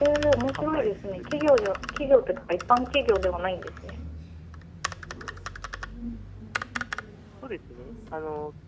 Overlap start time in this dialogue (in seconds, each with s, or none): 0.5 s